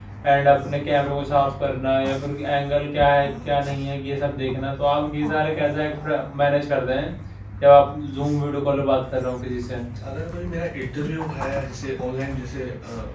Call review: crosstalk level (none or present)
none